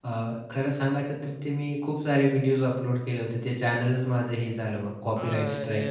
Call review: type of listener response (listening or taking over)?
taking over